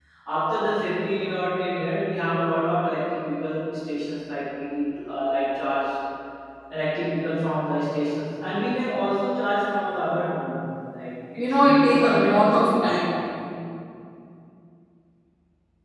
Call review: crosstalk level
present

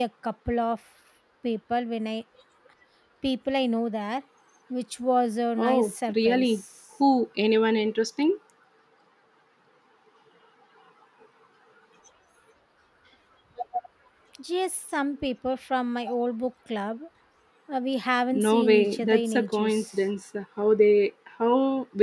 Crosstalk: present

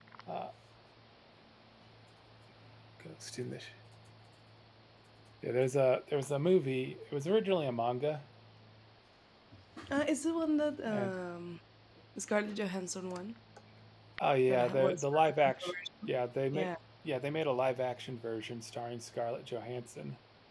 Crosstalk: present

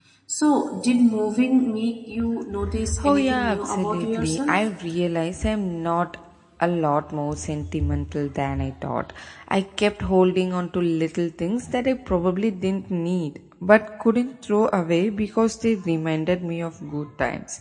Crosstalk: present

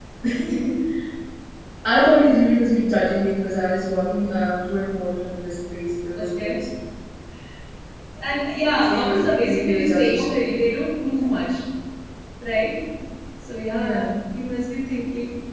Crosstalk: present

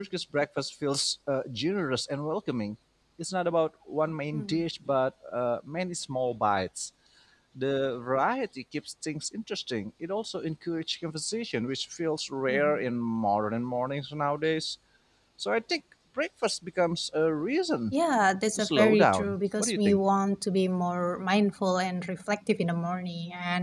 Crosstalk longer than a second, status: present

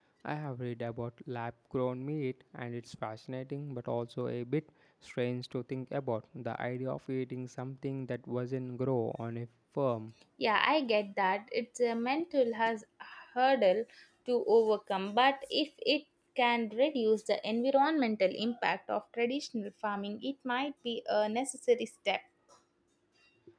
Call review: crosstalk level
none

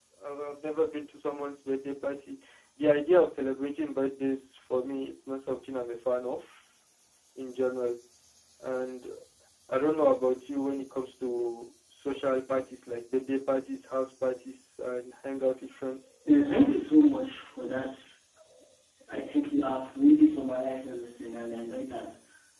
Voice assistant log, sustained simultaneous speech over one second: none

